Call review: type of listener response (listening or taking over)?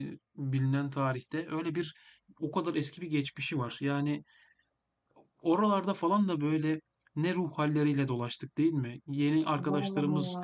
listening